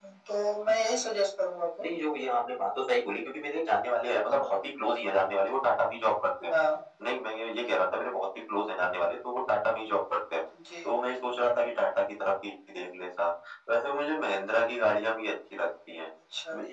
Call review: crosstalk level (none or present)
none